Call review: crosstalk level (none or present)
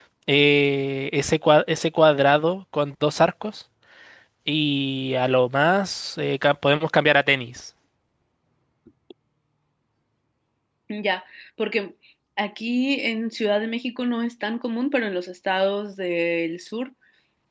none